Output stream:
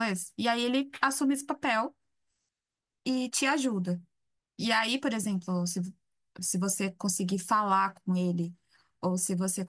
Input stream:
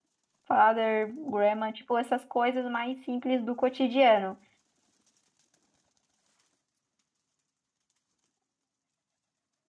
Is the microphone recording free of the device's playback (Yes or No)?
Yes